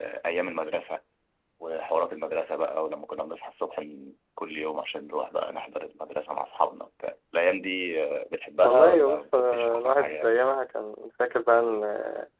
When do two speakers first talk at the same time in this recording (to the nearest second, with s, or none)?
9 s